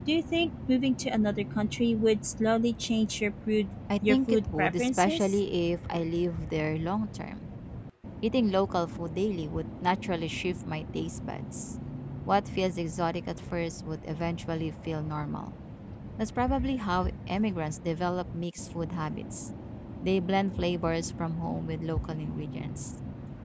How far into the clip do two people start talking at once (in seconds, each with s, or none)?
3.9 s